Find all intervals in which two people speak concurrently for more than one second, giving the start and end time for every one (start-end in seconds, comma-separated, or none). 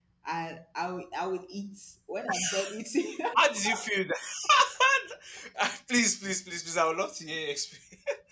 none